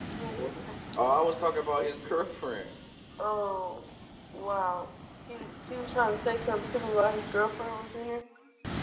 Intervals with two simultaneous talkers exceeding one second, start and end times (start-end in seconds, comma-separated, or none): none